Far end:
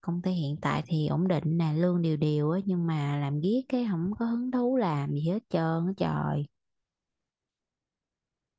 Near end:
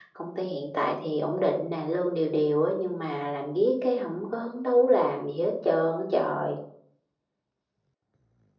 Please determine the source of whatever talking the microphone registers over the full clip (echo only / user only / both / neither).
echo only